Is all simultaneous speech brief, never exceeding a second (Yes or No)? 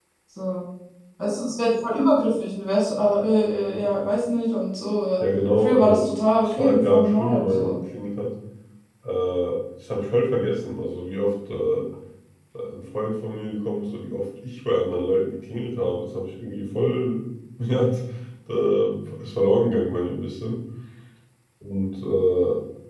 No